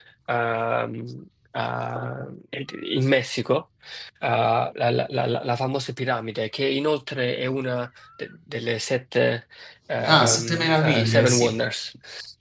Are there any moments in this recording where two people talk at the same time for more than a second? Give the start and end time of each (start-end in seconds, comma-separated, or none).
10.0-11.5